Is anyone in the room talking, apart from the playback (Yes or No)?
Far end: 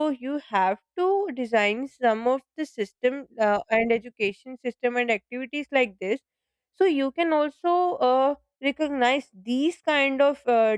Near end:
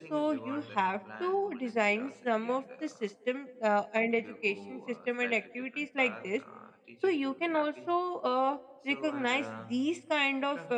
Yes